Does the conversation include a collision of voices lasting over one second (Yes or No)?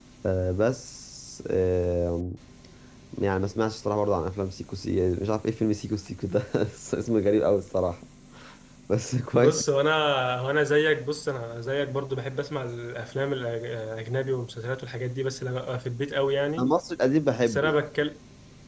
No